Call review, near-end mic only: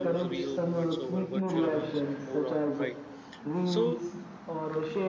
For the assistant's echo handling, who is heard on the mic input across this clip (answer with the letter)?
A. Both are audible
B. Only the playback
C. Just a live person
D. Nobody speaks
A